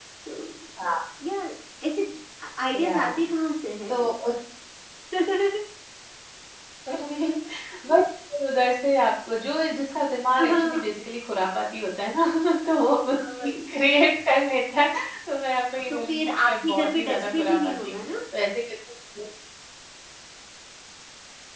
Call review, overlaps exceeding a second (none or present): present